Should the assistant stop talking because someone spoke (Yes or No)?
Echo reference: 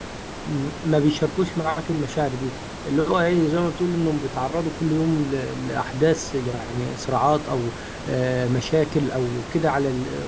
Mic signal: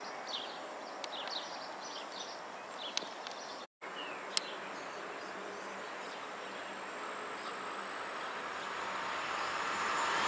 No